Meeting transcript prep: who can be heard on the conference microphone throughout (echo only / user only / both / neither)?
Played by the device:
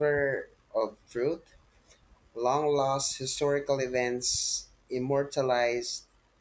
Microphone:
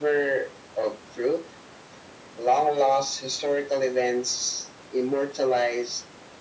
echo only